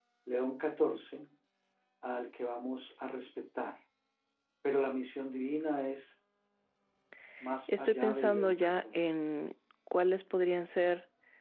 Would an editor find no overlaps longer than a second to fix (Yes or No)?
No